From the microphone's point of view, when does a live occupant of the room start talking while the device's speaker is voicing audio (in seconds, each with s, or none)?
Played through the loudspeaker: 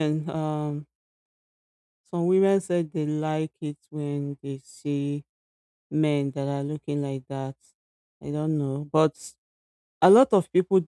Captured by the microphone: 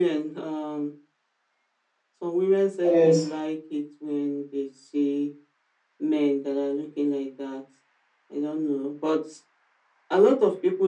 2.9 s